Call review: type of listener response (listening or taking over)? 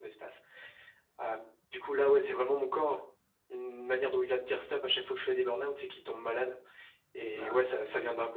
listening